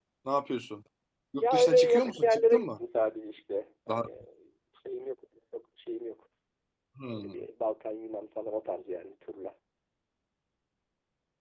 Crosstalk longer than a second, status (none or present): present